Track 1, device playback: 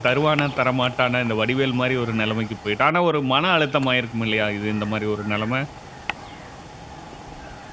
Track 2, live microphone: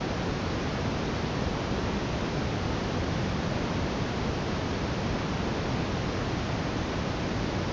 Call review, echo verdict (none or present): none